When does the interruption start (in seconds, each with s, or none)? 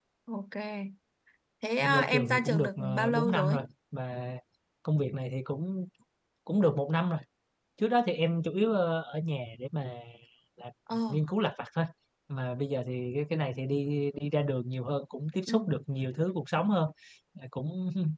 1.8 s